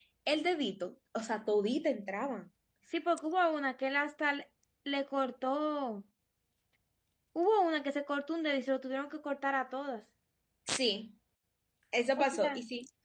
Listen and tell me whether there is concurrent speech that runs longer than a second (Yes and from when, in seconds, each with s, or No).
No